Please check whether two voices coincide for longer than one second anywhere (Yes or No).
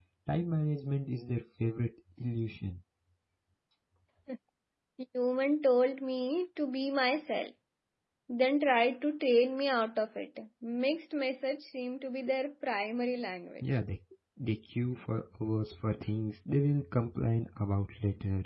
No